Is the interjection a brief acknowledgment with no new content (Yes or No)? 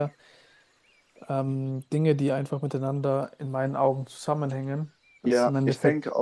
No